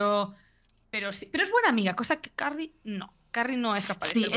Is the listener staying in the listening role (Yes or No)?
No